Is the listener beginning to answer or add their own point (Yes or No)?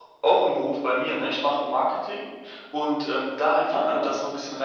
No